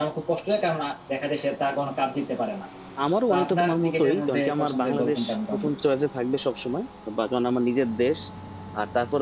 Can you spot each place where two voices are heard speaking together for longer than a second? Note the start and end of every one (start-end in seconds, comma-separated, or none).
3.3-5.8